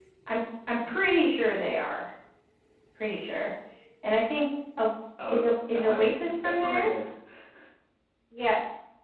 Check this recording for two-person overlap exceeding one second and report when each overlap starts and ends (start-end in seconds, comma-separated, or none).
5.3-6.8